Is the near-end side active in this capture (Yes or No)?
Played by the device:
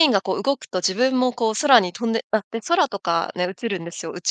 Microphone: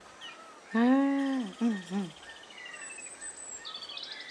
Yes